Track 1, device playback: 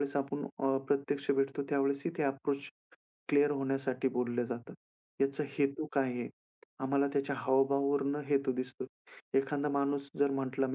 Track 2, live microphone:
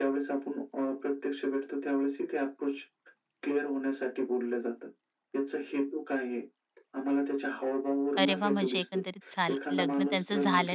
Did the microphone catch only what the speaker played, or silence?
No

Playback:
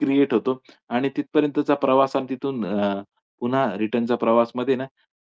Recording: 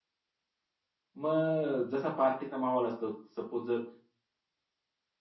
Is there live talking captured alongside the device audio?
Yes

